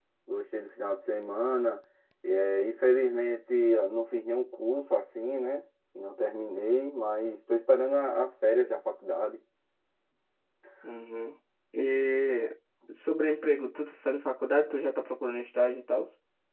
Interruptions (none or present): none